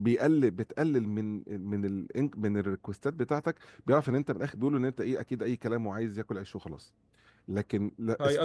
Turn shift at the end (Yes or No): Yes